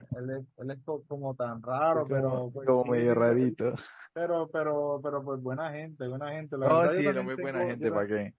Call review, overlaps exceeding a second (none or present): present